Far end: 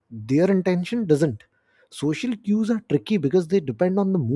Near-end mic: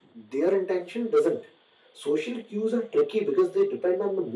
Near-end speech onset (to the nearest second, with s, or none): none